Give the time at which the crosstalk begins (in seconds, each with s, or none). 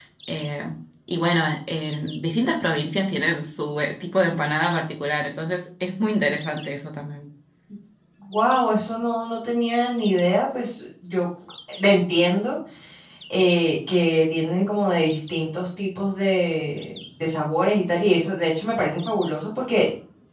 none